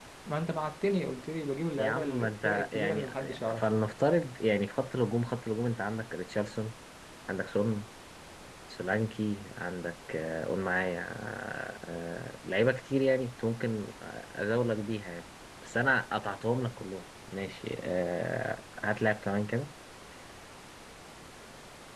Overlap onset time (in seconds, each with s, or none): 1.7 s